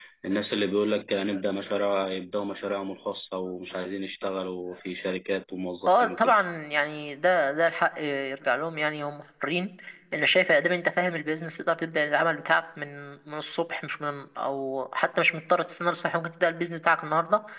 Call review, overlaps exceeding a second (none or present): none